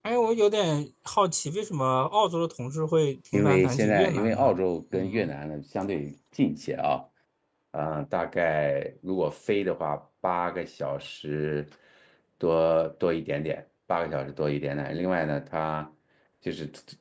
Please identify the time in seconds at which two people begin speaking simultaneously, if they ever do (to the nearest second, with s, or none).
3 s